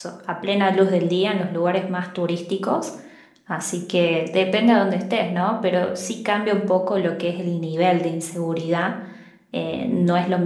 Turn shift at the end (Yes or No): No